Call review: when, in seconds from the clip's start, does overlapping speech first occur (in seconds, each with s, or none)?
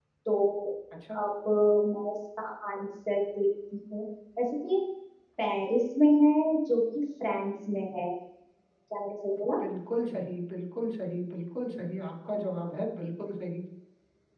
none